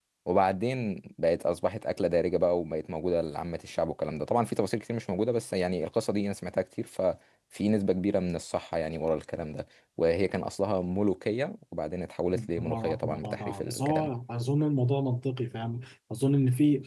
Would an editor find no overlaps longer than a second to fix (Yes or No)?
No